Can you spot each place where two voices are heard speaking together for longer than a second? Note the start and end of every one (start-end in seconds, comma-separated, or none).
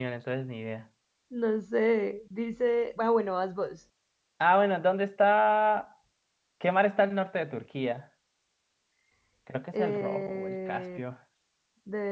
9.7-11.0